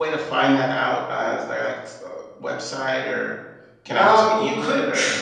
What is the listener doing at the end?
taking over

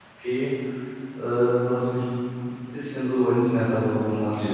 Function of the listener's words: taking over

